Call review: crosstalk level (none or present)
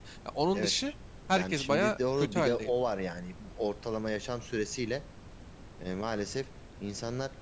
present